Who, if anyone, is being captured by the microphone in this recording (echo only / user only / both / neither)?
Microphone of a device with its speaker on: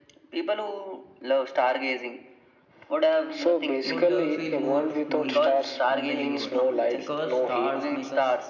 both